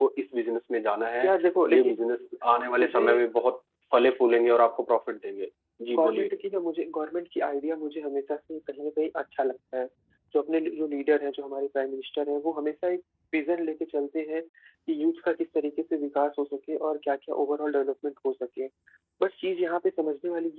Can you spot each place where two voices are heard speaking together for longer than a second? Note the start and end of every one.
none

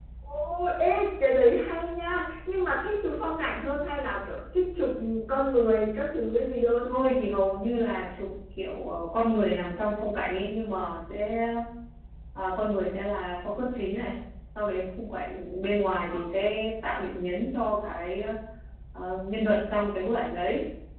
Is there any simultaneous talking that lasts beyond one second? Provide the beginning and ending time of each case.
none

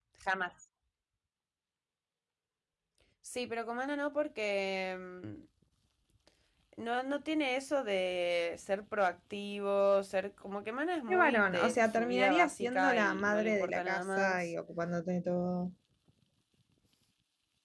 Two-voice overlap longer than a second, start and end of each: 11.1-14.5

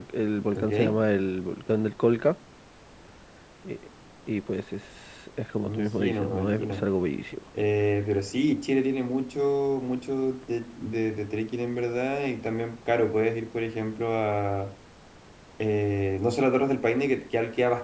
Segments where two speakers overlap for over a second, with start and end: 5.7-6.9

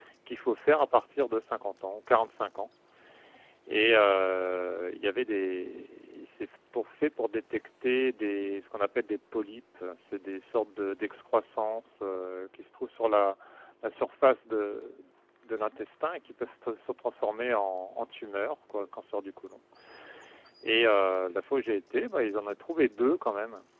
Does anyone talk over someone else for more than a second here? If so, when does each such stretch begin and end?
none

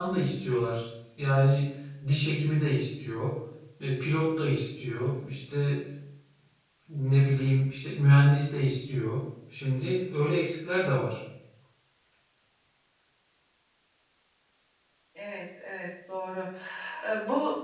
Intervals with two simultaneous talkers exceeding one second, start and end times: none

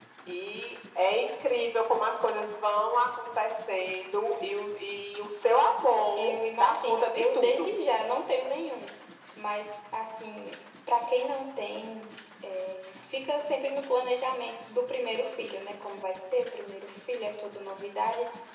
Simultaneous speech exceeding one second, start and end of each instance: 6.2-7.7

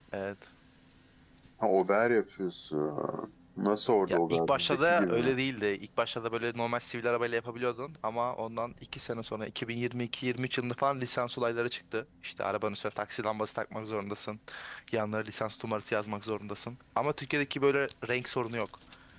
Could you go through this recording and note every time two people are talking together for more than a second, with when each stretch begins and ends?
4.1-5.3

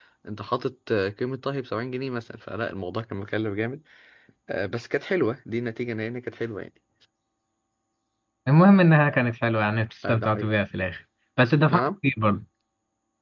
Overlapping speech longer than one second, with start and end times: none

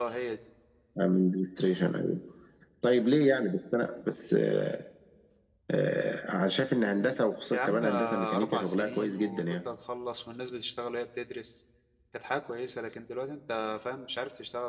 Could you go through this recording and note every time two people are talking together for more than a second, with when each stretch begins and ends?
7.5-9.4

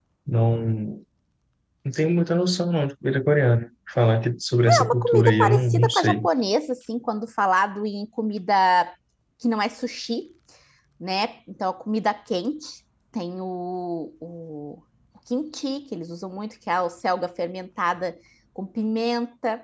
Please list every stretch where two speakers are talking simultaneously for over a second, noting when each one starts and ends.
4.7-6.2

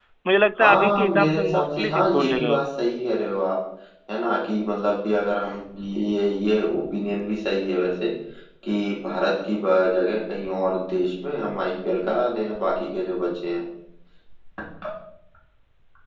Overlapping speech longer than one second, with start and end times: 0.6-2.7

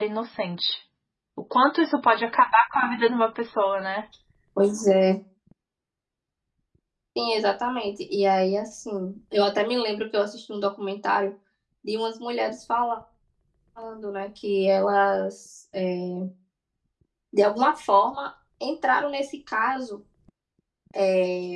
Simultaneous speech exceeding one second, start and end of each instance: none

